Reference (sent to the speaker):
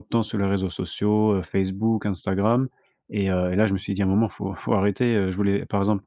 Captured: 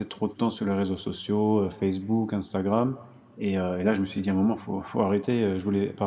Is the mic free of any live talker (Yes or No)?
Yes